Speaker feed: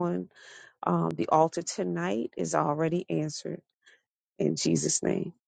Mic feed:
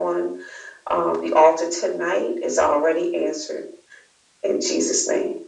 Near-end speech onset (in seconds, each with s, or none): none